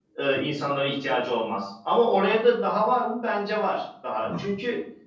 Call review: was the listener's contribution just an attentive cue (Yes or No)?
Yes